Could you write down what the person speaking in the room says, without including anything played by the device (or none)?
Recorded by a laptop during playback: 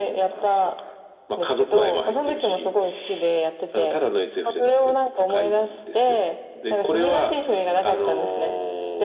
none